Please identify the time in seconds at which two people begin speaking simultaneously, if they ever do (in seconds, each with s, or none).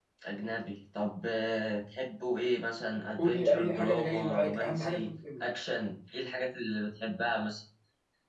3.2 s